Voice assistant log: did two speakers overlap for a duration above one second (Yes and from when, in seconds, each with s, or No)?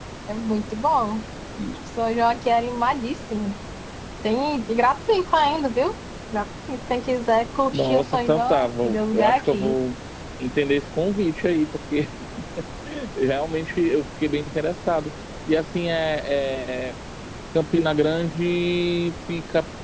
Yes, from 7.7 s